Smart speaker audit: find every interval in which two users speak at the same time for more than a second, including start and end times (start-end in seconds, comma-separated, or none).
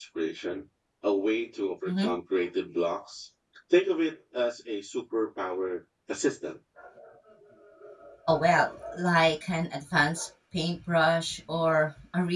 none